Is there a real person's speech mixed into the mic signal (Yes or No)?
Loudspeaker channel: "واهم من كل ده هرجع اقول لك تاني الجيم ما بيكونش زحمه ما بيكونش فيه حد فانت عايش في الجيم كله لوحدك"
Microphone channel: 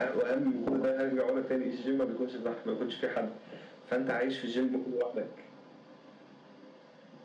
No